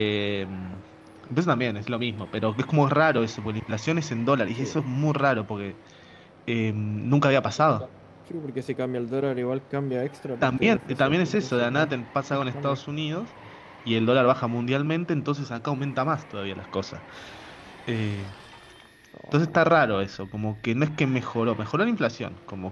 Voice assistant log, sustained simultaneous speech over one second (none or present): present